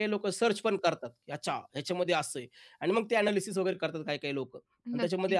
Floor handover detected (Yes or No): No